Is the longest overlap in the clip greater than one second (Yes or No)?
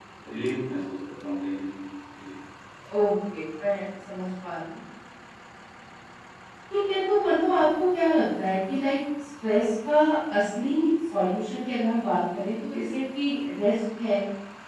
No